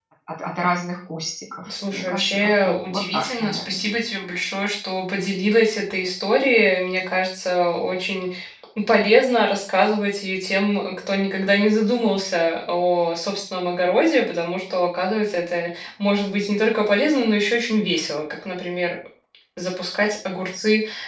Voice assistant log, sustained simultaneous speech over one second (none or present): present